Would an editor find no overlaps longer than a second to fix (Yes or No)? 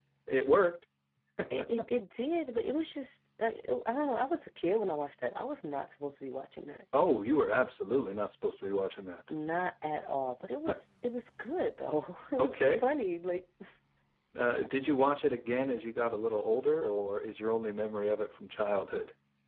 Yes